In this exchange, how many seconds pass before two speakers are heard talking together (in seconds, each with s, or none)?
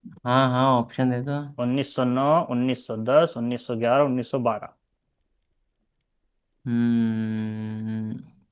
none